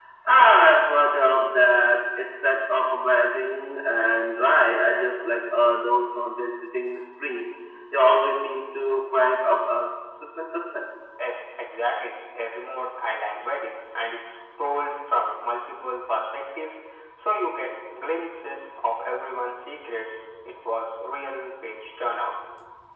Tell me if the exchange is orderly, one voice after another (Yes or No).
Yes